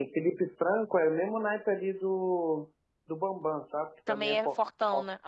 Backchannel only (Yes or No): No